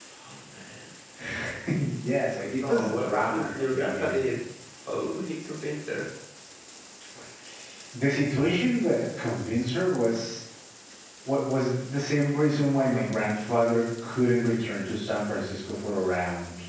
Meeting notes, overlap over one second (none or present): present